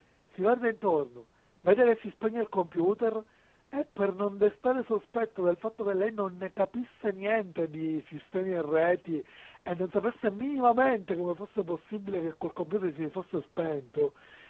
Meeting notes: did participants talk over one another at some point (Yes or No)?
No